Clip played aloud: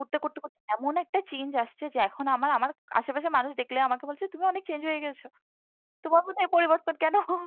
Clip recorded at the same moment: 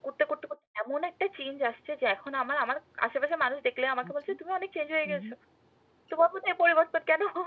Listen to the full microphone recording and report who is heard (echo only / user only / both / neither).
both